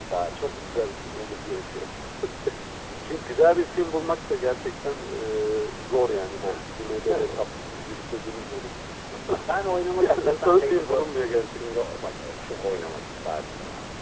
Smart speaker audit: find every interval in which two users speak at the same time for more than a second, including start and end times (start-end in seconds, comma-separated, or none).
10.0-11.8